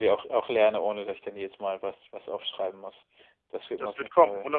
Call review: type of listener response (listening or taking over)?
taking over